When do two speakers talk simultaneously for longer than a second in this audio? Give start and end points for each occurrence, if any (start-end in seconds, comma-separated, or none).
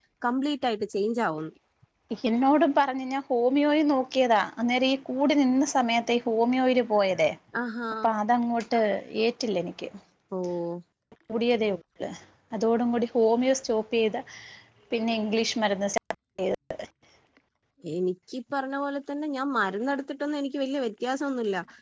none